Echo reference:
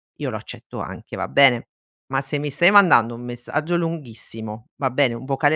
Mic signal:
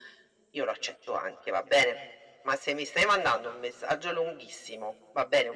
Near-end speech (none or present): none